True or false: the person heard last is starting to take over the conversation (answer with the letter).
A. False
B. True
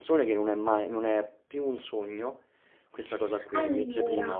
A